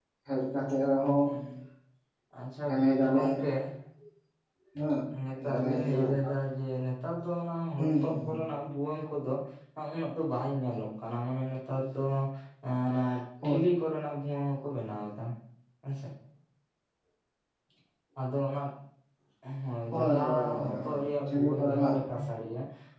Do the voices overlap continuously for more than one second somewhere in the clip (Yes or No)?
Yes